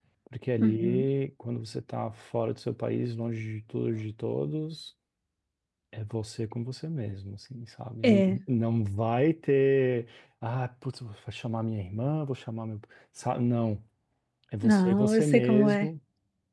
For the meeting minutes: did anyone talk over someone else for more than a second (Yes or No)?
Yes